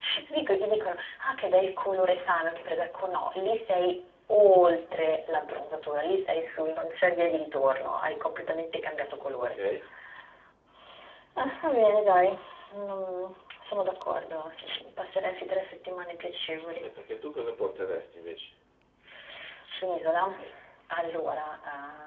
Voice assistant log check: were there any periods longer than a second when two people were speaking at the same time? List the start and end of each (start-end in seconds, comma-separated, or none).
none